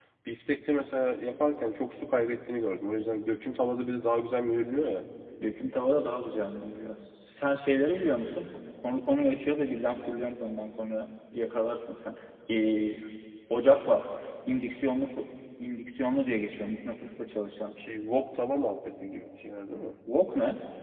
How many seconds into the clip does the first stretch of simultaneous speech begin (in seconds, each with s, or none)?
none